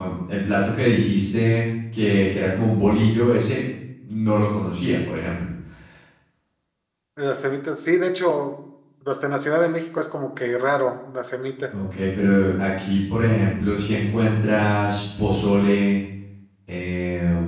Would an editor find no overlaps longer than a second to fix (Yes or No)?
Yes